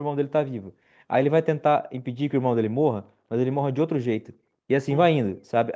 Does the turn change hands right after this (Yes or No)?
No